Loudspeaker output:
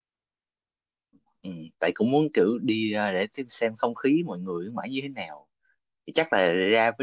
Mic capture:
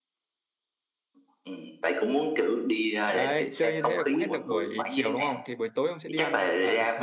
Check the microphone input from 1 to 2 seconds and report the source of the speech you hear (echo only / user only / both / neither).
echo only